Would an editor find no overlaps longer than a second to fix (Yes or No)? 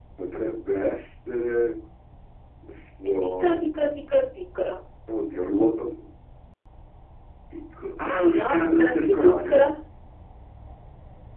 No